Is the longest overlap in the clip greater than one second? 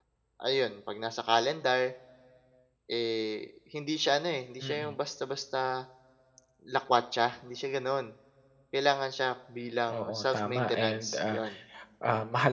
Yes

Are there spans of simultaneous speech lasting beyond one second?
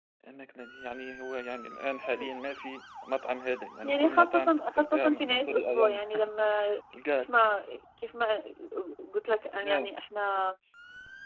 Yes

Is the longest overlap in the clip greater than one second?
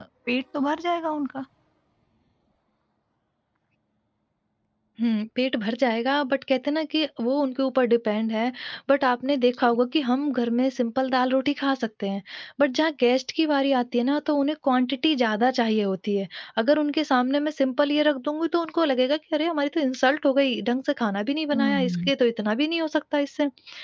No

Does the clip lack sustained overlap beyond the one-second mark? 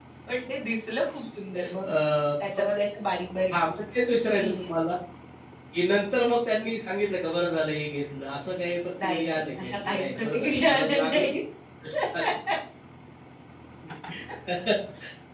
No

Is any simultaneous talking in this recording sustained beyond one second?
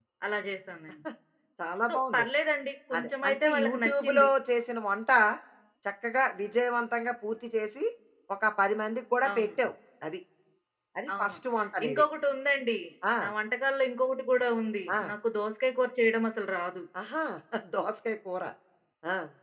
Yes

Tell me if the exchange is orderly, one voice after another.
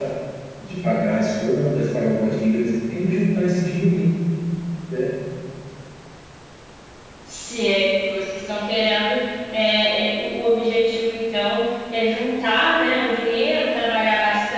Yes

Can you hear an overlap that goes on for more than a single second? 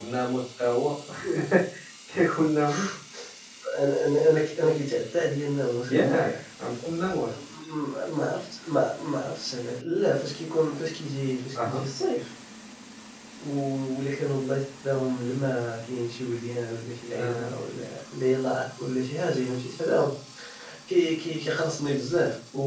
No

